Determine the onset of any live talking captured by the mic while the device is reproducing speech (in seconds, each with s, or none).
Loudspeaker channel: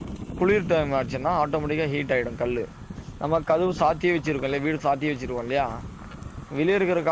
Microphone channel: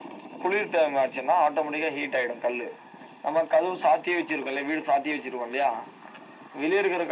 none